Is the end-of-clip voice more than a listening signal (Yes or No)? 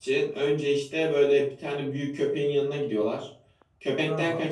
No